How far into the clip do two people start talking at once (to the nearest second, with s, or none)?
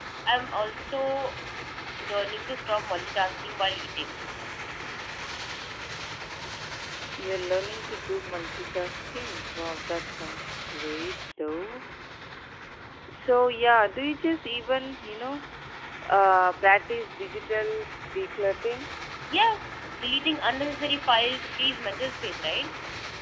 none